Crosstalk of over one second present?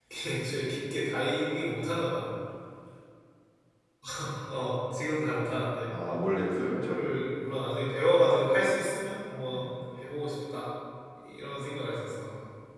No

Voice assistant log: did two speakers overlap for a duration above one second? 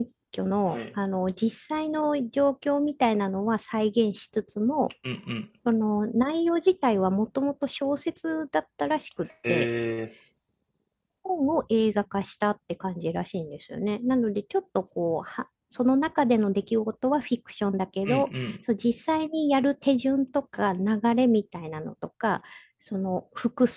No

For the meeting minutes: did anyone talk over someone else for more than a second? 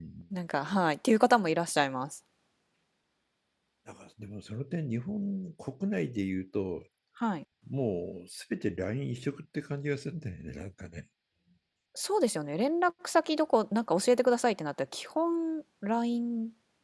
No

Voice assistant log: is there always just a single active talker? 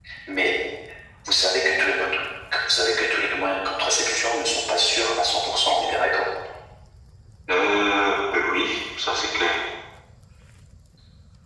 Yes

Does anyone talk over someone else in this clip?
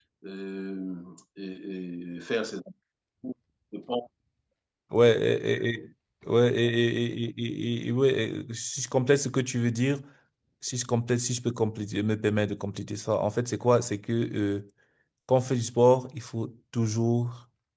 No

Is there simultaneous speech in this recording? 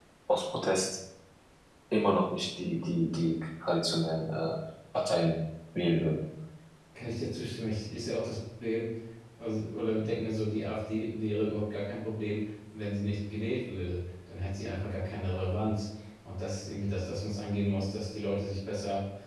No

